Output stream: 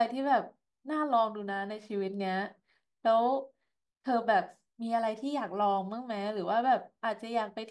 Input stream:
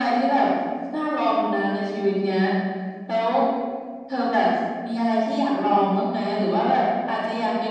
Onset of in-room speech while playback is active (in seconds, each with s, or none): none